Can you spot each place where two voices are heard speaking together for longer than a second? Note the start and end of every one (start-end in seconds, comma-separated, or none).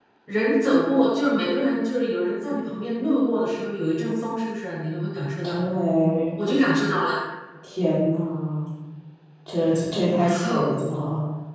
none